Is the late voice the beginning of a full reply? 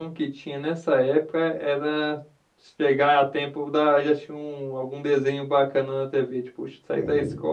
No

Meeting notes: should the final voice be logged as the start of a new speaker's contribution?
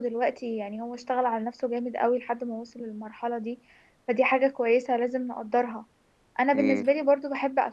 No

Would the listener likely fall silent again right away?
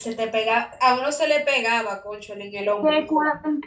No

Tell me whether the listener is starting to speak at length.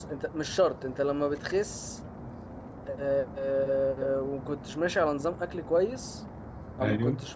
No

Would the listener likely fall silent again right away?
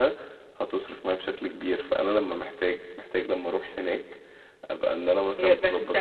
No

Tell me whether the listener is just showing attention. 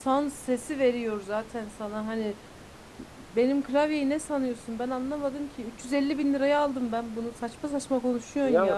No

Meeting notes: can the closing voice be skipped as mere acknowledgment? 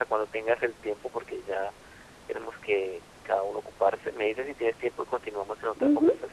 No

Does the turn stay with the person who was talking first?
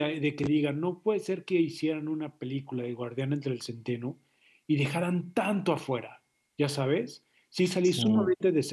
Yes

